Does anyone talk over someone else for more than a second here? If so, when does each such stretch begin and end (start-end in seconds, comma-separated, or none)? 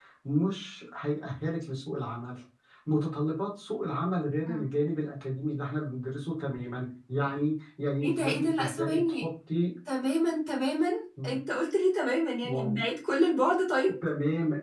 8.0-9.2